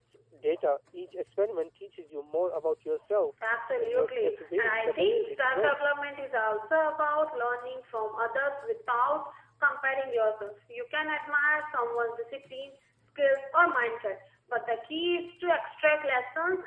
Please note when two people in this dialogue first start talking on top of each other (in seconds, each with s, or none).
3.8 s